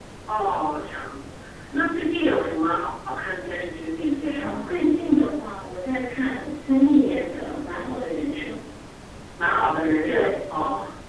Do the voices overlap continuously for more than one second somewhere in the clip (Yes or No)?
No